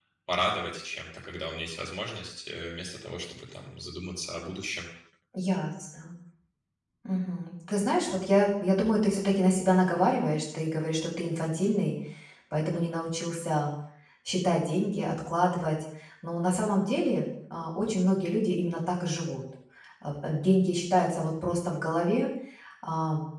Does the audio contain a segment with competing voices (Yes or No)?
No